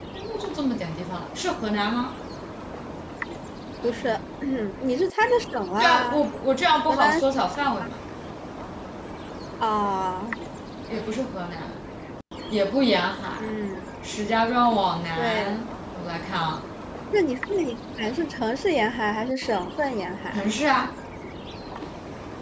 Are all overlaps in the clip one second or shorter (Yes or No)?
Yes